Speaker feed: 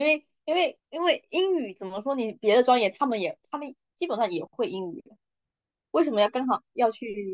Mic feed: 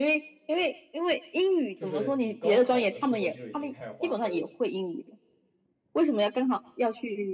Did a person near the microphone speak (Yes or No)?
Yes